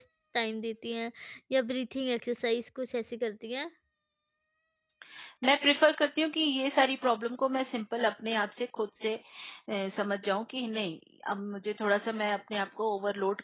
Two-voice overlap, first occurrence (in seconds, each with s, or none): none